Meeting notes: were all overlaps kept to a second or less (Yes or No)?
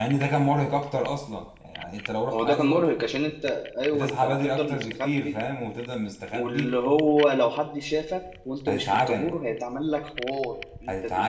No